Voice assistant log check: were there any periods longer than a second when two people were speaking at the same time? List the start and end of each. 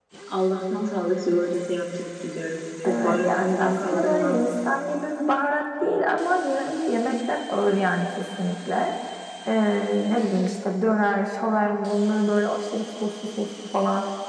2.9-4.3

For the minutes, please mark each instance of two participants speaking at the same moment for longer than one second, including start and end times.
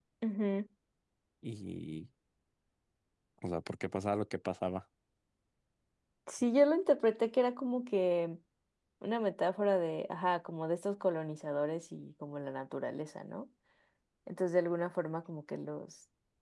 none

